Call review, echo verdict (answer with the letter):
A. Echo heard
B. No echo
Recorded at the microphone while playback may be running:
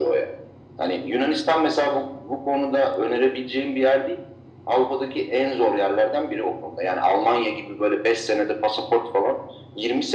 A